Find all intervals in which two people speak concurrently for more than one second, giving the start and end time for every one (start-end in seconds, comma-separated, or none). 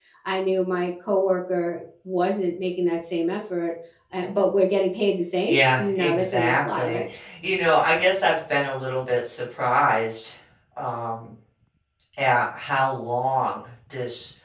5.5-6.8